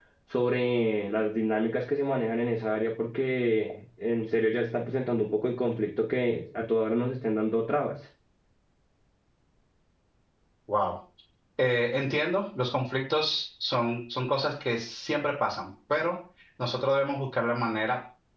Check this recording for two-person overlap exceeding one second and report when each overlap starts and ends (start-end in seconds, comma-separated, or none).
none